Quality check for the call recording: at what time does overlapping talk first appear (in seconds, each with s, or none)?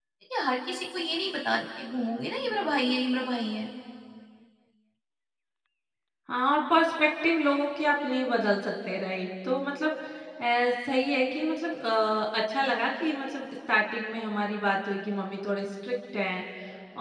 none